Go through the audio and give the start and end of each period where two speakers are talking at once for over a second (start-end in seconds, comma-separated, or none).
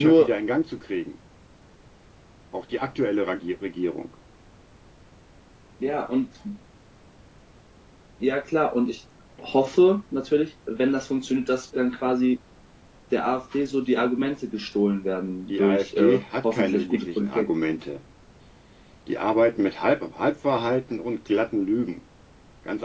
15.5-17.5